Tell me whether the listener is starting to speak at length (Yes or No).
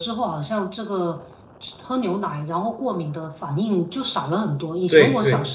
No